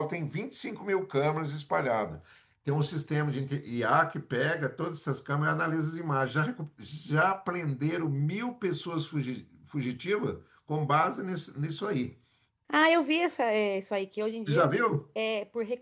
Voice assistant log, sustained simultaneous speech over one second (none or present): none